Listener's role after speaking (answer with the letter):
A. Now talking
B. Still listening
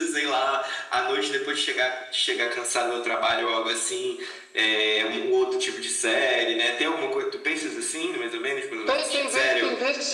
A